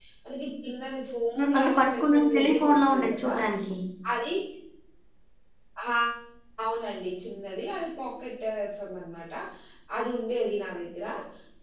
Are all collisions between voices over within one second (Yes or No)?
No